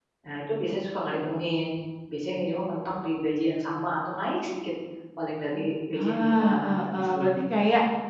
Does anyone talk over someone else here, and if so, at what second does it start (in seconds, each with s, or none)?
5.9 s